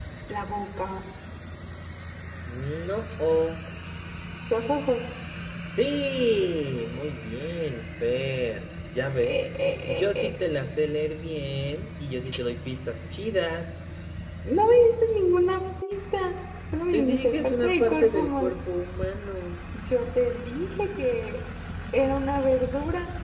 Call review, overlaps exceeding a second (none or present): present